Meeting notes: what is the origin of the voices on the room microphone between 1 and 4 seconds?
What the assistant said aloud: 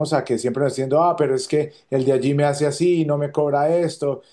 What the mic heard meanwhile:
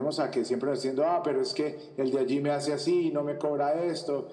echo only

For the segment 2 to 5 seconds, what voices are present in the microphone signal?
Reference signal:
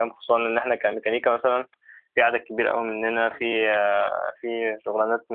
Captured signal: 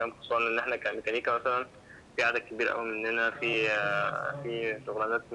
both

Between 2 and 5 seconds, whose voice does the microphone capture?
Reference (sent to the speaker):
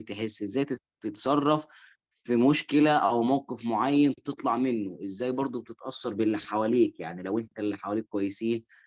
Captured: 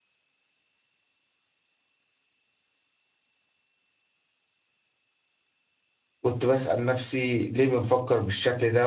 neither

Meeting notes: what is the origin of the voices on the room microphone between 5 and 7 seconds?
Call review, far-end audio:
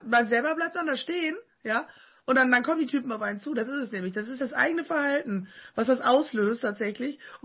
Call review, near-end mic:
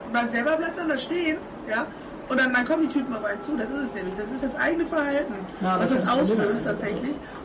both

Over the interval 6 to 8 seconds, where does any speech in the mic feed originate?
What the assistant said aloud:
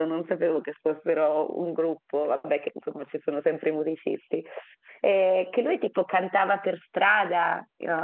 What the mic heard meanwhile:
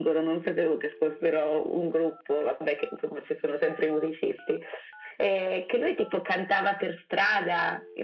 echo only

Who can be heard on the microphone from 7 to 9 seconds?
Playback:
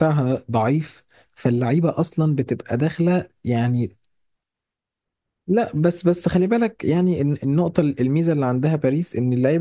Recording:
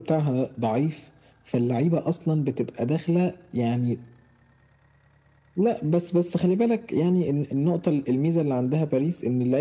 echo only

